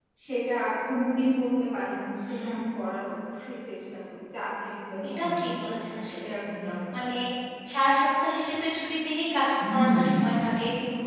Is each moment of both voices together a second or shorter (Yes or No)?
No